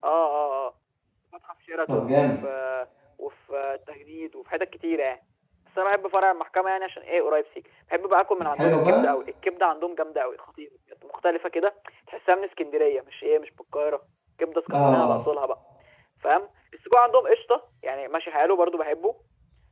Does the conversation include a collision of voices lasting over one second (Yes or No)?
No